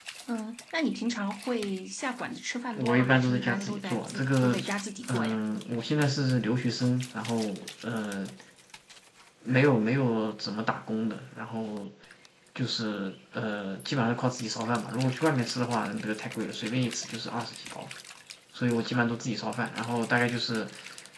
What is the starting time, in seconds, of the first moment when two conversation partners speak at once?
2.8 s

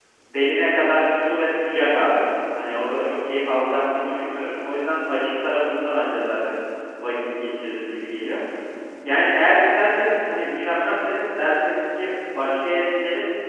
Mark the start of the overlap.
none

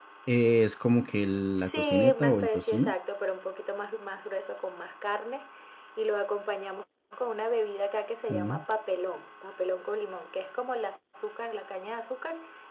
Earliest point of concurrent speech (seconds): 1.6 s

